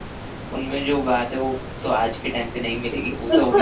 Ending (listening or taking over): taking over